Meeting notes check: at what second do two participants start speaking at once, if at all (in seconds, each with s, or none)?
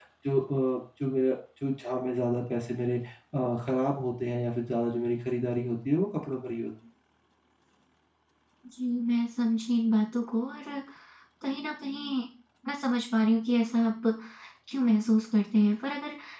none